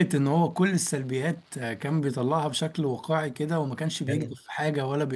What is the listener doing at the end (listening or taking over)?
listening